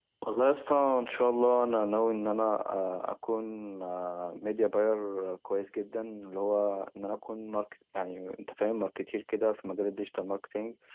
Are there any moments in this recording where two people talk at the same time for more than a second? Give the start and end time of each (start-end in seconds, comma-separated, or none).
none